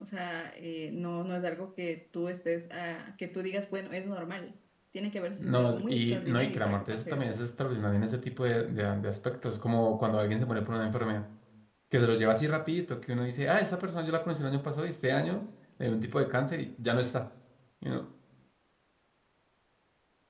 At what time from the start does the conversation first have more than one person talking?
5.4 s

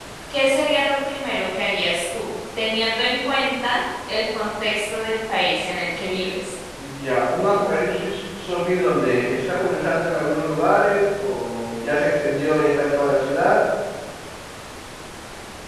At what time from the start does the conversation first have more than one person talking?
none

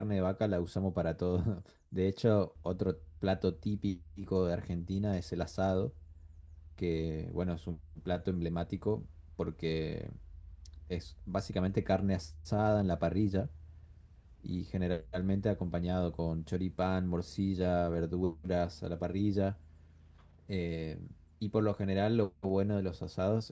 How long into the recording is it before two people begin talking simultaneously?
none

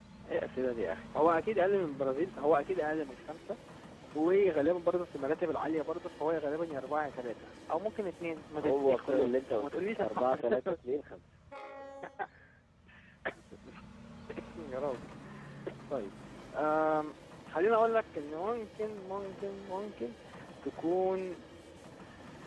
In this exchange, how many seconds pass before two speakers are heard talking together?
8.5 s

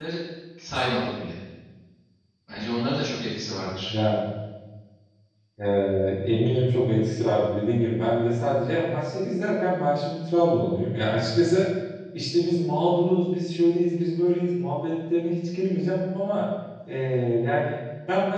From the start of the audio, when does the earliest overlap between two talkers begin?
none

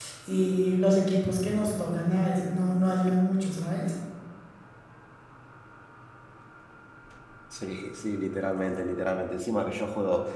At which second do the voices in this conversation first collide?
none

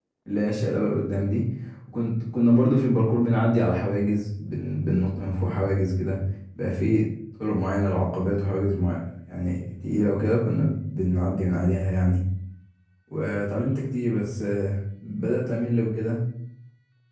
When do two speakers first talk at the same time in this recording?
none

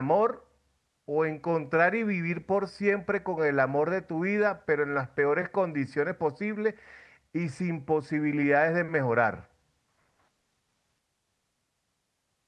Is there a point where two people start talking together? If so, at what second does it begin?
none

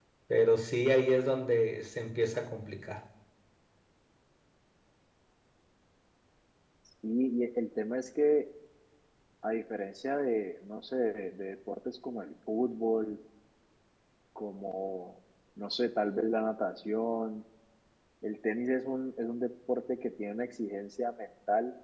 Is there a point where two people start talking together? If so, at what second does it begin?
none

